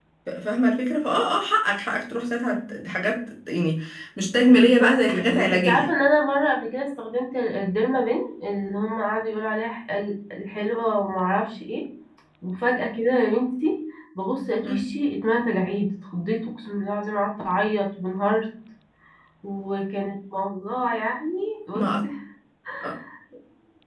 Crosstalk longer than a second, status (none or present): present